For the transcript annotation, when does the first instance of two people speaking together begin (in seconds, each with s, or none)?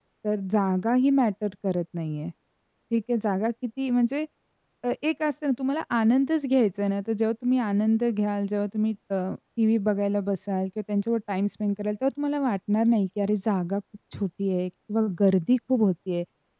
none